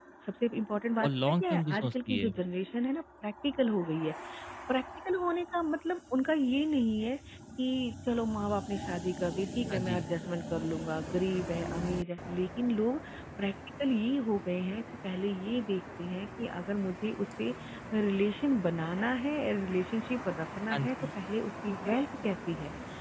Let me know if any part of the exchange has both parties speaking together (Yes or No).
Yes